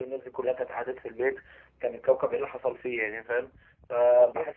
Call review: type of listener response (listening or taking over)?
listening